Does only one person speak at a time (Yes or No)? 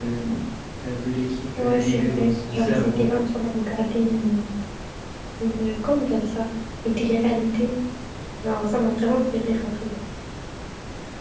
No